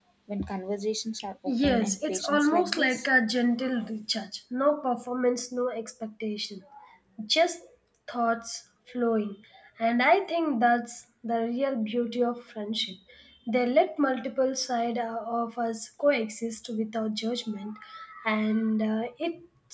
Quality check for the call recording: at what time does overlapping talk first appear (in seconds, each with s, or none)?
1.5 s